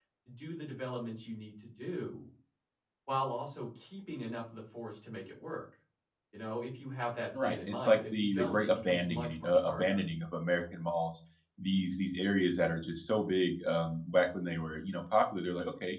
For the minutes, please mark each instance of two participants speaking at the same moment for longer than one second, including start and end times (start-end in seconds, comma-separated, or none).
7.4-10.0